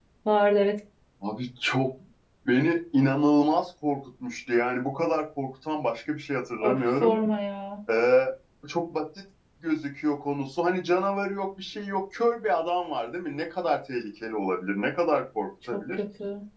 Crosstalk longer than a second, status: none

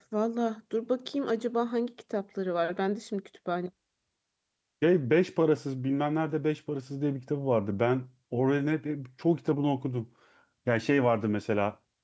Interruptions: none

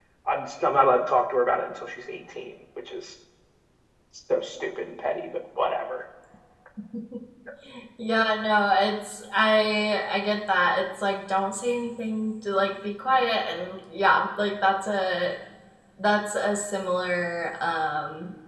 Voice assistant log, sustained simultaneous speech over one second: none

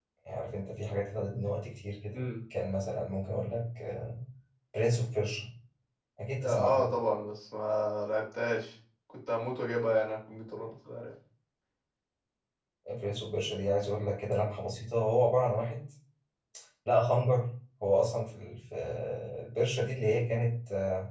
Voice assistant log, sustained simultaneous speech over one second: none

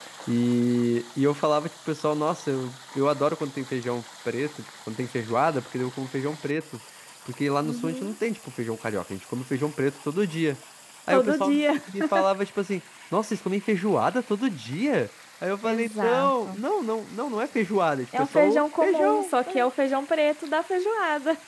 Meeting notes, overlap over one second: present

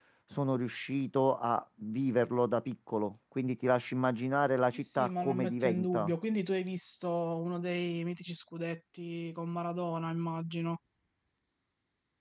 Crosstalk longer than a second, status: present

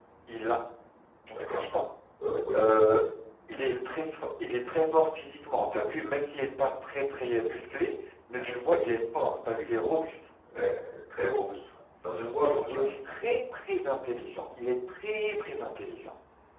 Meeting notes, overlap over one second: none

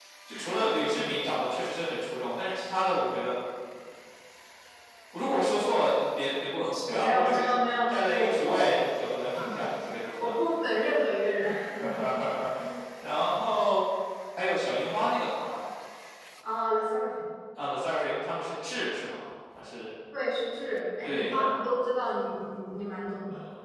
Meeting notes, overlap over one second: present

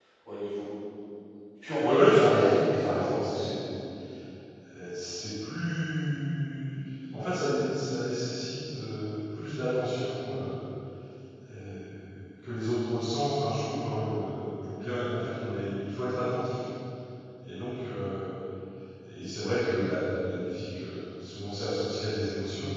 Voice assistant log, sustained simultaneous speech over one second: present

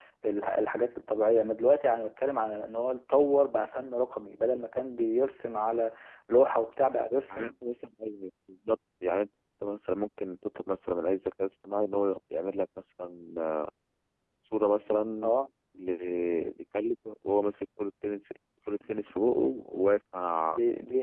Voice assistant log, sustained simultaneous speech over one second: none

